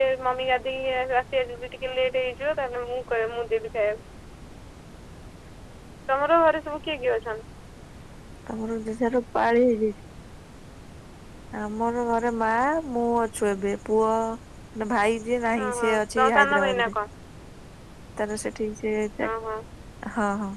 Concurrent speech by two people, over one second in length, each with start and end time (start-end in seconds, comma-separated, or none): 15.6-16.9